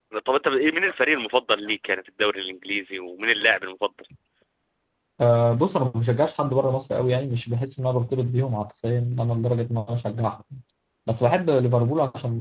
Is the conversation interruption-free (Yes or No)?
Yes